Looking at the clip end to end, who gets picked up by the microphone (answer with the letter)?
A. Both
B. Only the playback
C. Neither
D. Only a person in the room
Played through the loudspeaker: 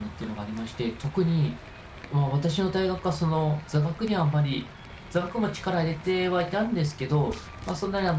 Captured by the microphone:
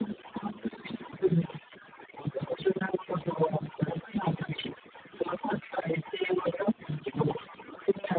B